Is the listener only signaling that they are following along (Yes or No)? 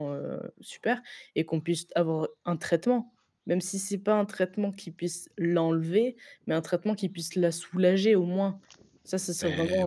No